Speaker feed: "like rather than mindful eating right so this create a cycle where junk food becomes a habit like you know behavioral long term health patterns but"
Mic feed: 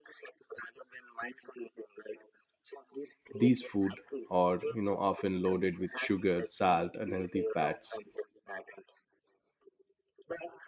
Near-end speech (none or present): present